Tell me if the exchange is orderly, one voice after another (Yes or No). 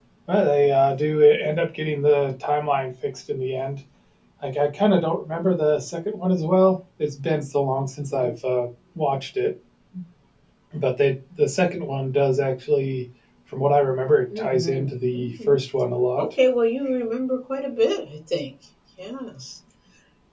No